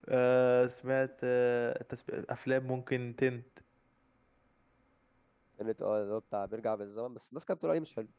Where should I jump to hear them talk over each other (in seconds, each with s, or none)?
none